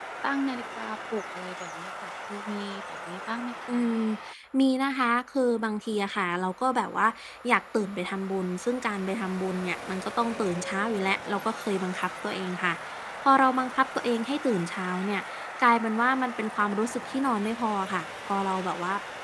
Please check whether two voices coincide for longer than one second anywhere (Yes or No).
No